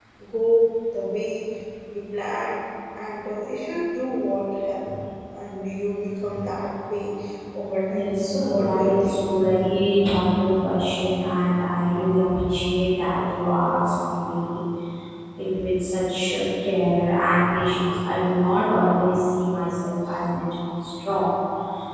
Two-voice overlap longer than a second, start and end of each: 7.9-9.2

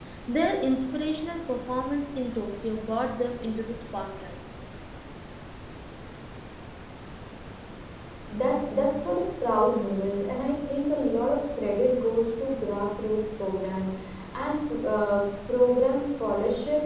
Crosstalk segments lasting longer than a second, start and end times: none

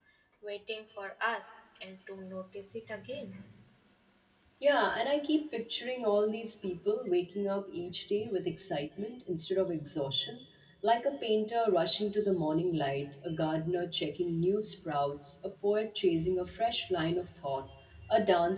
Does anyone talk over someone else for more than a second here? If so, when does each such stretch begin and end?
none

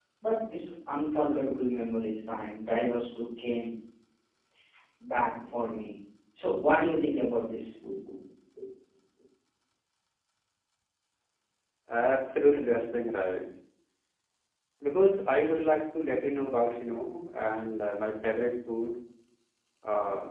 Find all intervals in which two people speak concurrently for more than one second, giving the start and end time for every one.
none

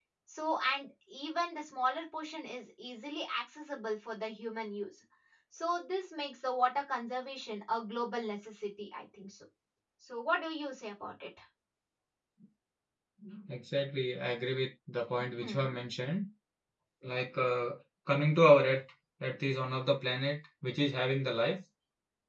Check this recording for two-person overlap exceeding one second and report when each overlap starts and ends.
none

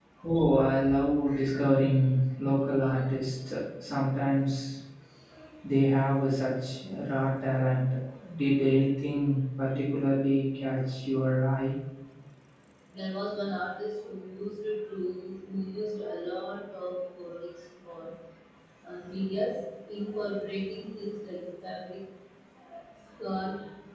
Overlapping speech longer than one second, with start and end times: none

